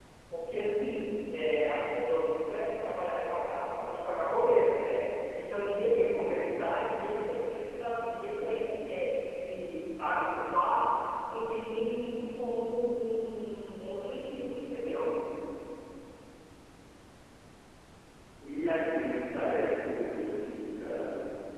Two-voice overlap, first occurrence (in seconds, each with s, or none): none